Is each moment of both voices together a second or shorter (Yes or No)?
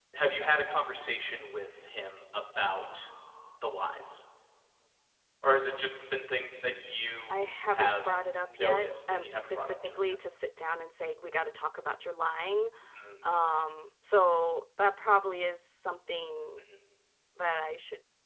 No